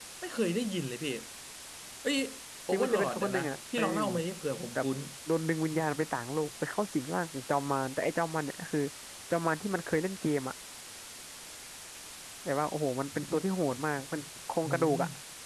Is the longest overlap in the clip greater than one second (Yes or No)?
Yes